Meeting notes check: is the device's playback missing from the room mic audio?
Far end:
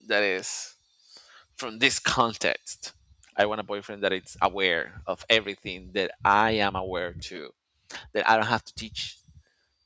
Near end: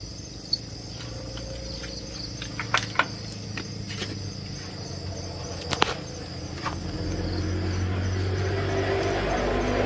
Yes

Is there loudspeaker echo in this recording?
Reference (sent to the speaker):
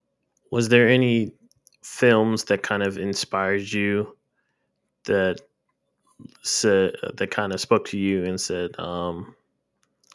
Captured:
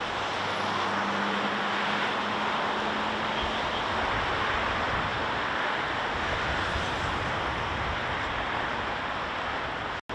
No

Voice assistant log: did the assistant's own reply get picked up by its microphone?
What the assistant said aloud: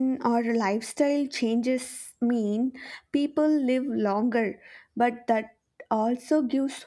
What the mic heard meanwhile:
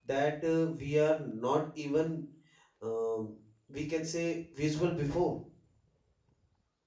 No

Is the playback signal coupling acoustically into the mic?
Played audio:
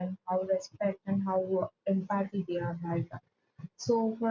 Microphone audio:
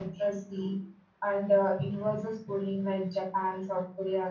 No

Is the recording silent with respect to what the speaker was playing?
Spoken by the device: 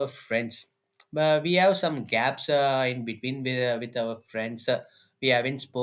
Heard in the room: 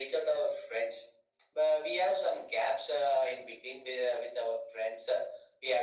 No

